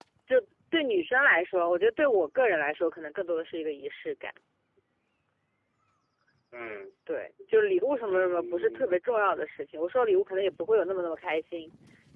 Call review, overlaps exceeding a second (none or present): present